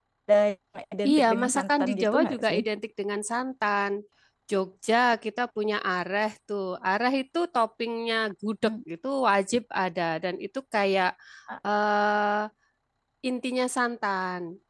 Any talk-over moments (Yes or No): Yes